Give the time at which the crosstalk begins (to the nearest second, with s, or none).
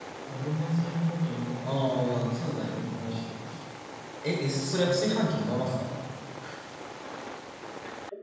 2 s